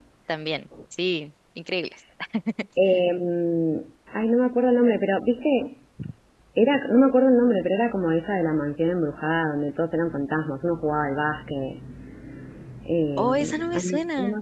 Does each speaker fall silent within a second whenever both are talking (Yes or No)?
No